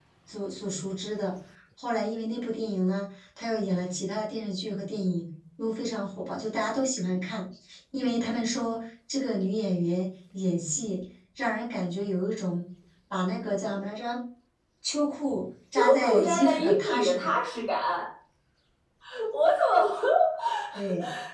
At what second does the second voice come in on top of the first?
15.8 s

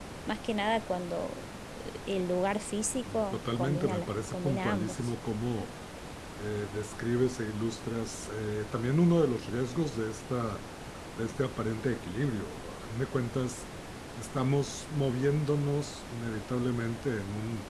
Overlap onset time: 3.1 s

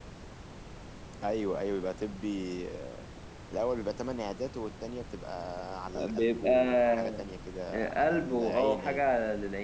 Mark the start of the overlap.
6.0 s

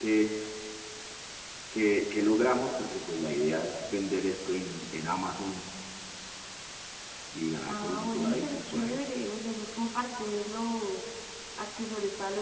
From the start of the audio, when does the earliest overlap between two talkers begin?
7.7 s

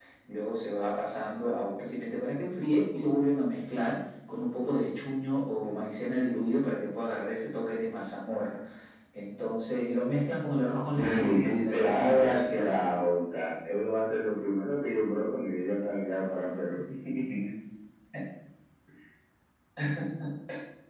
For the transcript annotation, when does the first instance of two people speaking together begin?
10.9 s

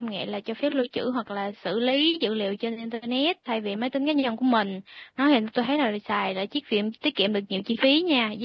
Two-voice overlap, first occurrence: none

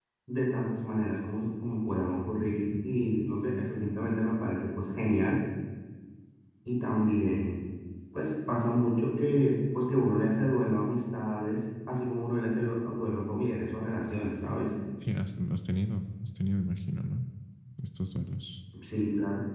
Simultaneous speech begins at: none

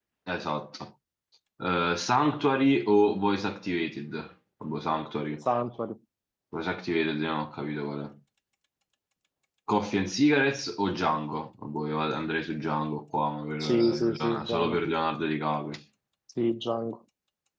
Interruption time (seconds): 13.6 s

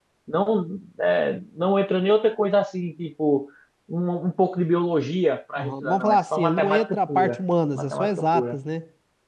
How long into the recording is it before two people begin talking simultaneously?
5.6 s

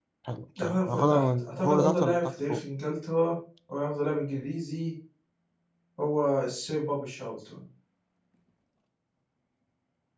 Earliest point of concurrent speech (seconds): 0.6 s

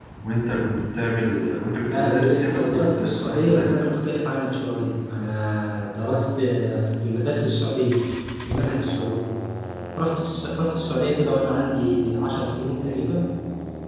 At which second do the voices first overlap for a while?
1.8 s

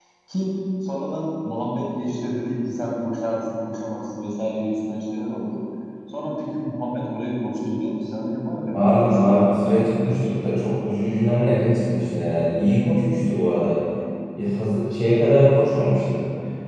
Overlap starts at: 8.7 s

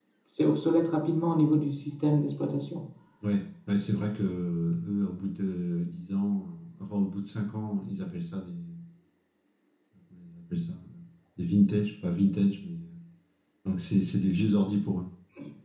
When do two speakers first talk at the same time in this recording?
none

